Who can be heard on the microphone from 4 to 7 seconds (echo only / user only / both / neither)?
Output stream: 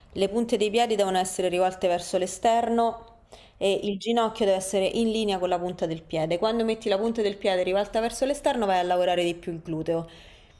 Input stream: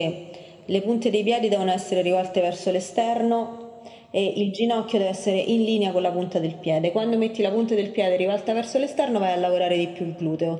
echo only